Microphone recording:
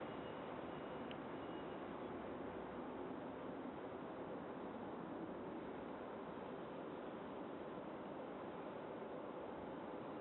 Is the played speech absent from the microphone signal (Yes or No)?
Yes